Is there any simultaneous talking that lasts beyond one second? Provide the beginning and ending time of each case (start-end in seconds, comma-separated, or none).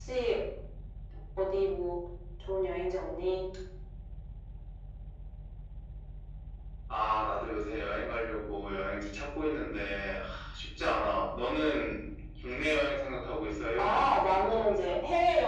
13.8-15.0